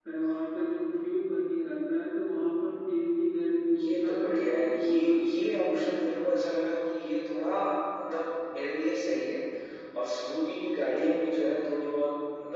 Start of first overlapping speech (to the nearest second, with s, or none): 4 s